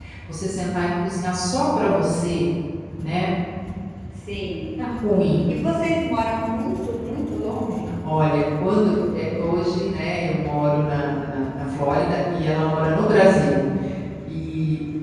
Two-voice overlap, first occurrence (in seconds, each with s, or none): none